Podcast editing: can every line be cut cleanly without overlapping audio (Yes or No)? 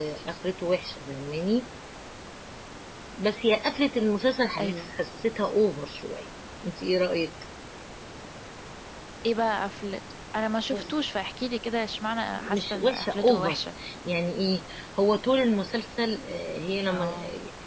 No